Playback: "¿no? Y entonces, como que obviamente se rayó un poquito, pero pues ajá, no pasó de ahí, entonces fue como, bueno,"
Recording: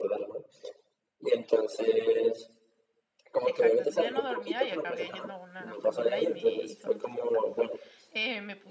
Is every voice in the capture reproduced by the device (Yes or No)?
No